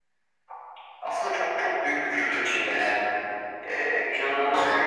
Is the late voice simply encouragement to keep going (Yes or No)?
Yes